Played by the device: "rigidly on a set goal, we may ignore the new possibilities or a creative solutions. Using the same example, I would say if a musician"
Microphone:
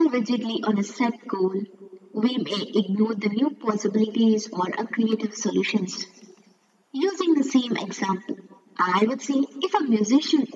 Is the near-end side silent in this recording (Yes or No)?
Yes